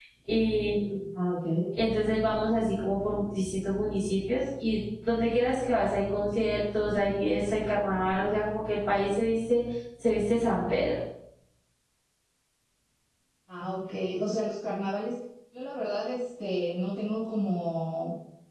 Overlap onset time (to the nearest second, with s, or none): none